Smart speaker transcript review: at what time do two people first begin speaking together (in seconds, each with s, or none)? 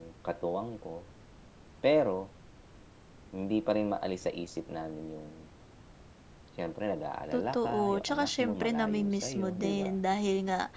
7.3 s